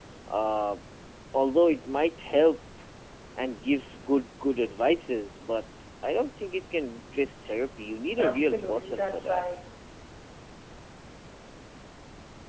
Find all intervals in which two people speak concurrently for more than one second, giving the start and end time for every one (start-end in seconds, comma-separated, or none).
8.2-9.4